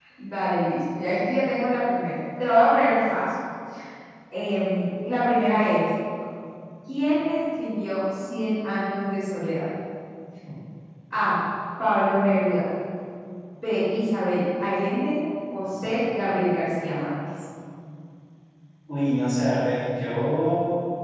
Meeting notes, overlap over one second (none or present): none